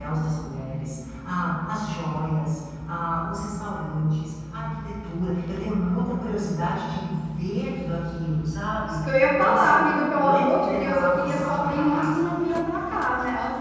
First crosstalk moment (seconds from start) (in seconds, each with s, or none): 8.8 s